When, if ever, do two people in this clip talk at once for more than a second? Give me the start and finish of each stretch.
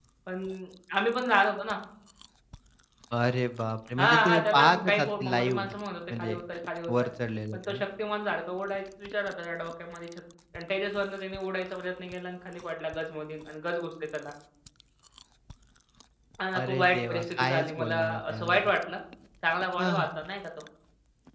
4.0-5.7, 16.5-18.7

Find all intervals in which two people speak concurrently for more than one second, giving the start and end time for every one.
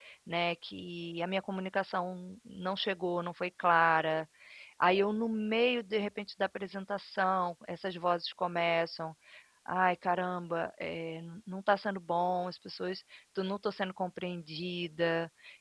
none

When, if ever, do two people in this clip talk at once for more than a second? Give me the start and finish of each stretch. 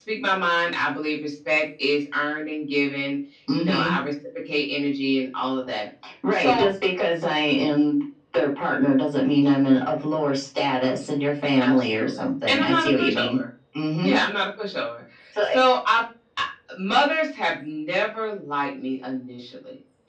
11.6-13.4

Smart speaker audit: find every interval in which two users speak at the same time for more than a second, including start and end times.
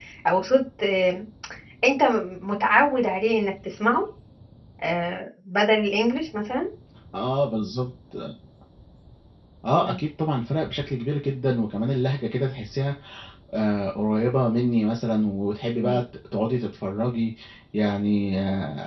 none

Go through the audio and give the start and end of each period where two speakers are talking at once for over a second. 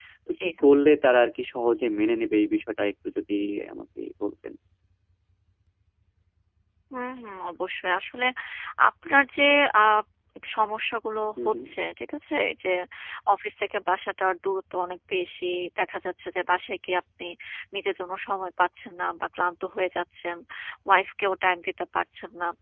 none

